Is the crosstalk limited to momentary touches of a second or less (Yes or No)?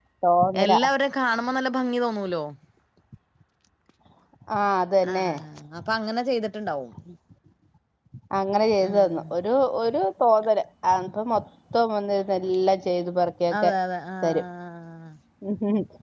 Yes